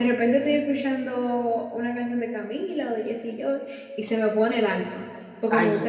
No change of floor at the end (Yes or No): No